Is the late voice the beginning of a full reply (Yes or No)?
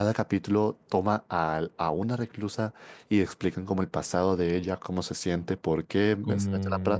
No